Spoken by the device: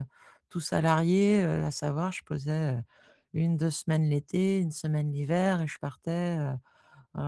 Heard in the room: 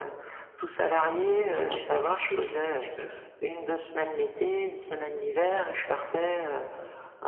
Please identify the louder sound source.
echo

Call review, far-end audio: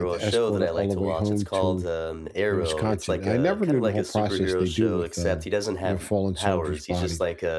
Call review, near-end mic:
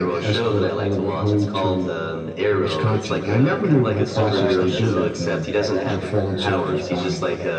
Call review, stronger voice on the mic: echo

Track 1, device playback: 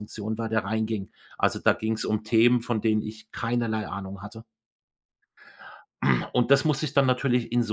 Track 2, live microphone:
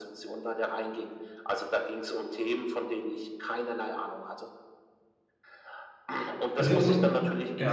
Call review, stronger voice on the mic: user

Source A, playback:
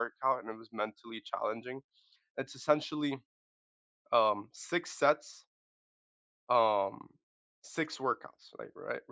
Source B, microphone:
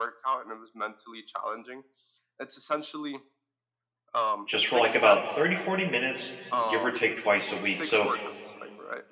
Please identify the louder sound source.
user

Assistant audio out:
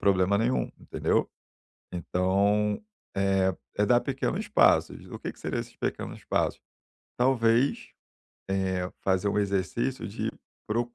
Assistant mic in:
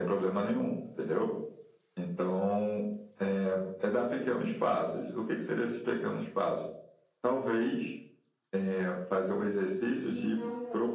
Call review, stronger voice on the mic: echo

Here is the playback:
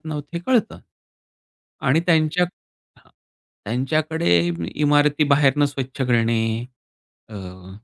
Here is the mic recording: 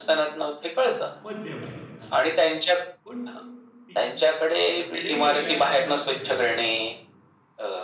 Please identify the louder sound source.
echo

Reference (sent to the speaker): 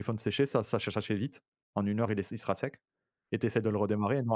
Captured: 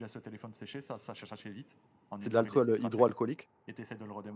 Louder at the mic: user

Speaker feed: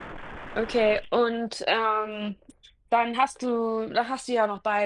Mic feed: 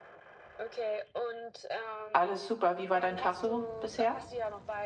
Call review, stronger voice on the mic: user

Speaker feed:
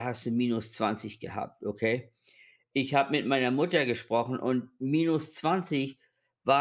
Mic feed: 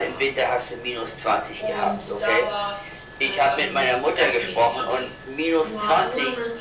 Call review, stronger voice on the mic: echo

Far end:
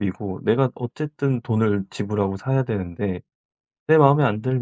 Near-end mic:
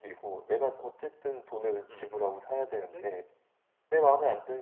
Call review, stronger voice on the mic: echo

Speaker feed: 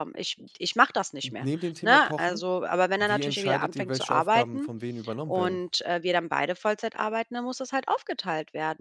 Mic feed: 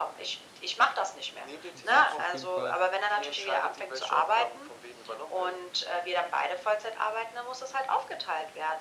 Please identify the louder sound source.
echo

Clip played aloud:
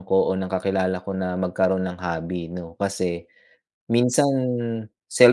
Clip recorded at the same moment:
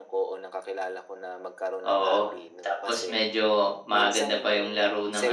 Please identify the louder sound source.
user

